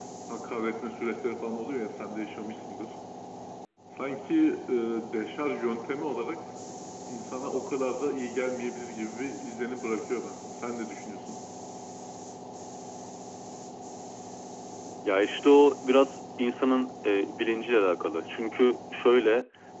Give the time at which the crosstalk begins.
none

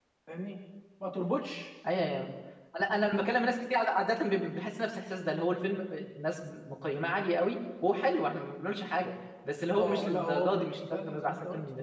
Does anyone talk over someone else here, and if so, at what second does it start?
10 s

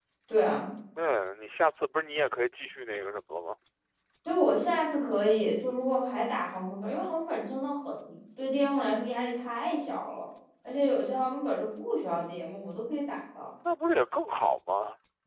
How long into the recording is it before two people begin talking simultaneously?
none

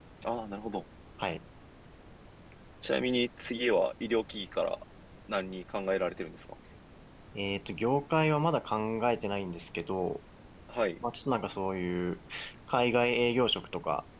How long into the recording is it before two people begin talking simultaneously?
none

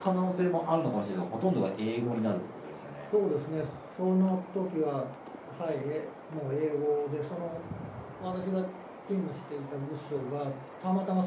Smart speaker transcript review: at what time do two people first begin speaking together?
none

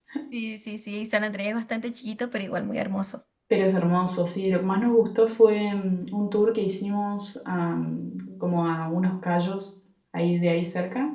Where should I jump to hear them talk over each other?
none

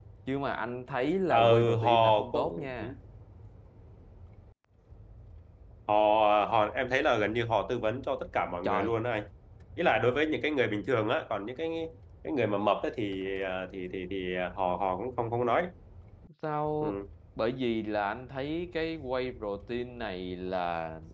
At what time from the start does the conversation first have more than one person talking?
1 s

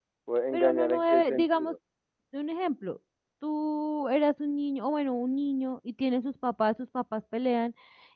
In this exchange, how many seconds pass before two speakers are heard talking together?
1 s

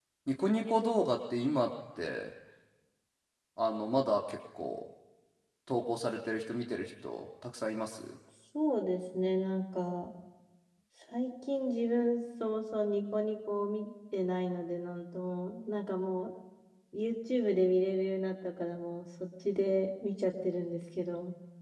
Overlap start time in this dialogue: none

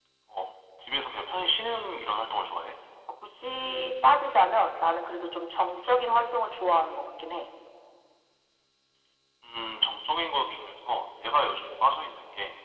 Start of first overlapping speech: none

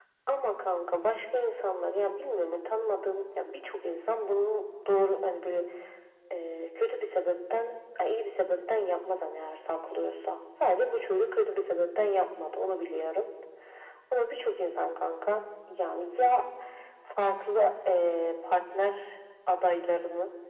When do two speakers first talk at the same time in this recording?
none

